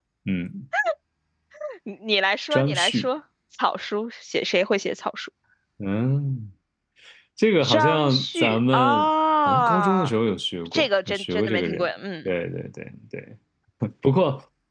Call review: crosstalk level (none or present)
present